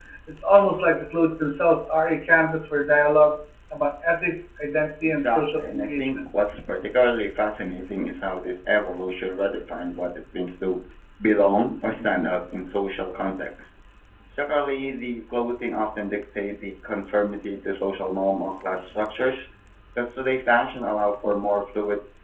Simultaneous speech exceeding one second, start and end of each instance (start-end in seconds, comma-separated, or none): 5.0-6.2